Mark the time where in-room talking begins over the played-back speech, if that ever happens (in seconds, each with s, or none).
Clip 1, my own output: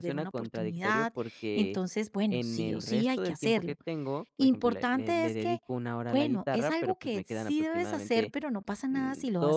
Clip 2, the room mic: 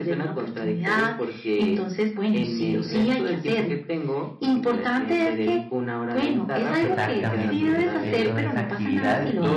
6.8 s